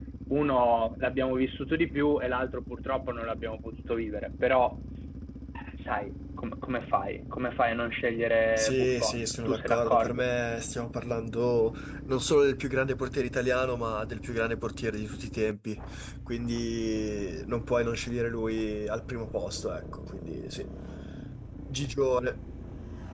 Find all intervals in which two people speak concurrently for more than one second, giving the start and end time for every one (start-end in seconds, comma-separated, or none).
8.6-10.2